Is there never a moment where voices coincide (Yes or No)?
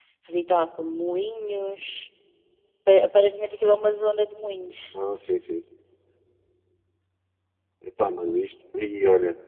Yes